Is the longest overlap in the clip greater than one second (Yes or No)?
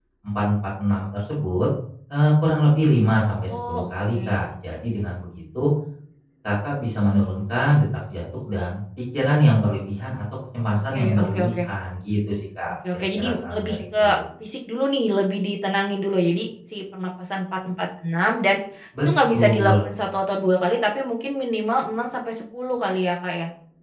Yes